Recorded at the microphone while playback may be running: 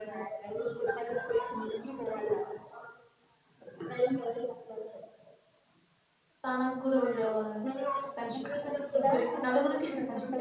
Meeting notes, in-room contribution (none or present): present